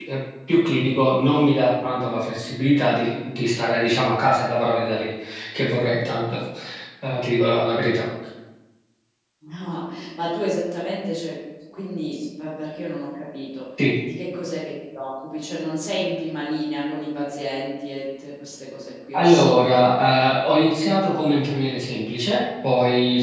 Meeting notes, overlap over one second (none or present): none